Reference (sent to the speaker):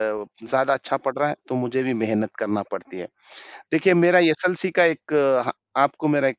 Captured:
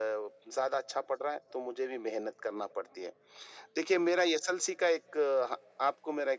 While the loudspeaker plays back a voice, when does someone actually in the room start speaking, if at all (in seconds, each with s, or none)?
none